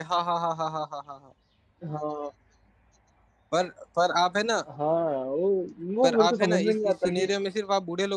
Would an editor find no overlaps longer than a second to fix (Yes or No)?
No